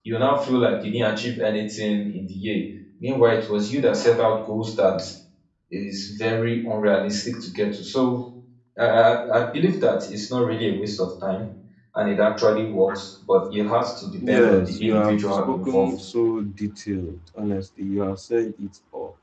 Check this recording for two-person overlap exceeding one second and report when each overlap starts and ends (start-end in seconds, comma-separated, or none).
14.3-15.9